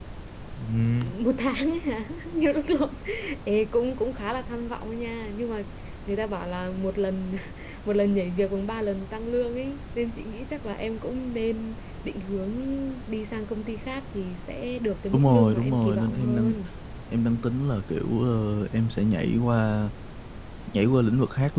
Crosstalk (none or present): present